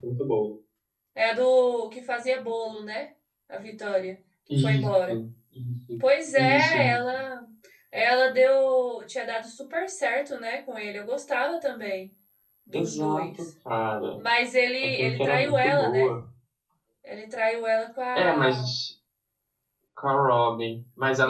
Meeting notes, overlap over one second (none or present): present